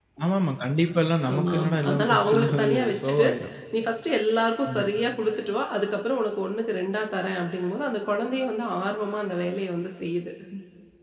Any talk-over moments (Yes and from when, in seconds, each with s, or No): Yes, from 1.3 s